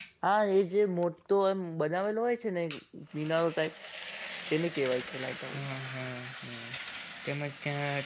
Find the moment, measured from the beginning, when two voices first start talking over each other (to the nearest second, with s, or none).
none